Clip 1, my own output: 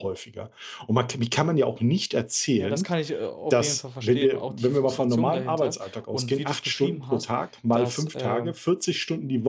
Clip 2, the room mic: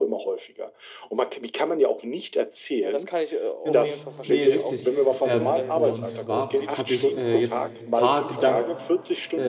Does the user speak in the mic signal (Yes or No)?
Yes